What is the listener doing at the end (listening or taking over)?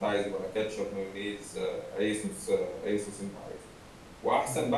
listening